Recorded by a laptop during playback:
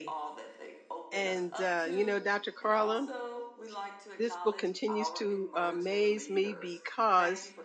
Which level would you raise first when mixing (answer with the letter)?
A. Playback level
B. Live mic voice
A